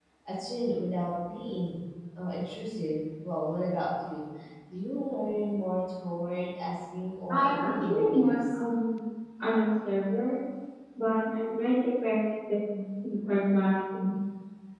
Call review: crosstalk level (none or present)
present